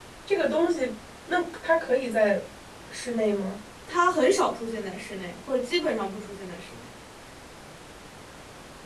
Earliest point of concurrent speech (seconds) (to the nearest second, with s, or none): none